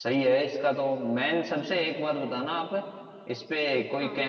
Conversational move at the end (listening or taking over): listening